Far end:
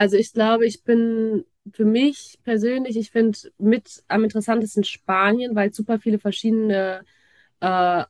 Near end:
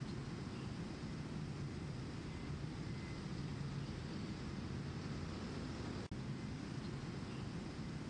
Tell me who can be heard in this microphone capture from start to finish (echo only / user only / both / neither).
neither